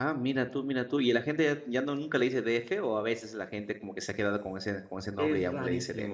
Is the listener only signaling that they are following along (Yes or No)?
No